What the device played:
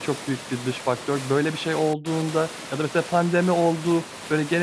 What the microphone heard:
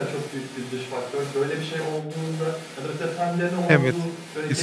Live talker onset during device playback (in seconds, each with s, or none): 3.7 s